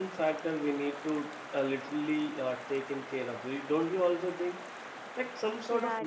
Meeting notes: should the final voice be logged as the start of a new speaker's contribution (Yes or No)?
No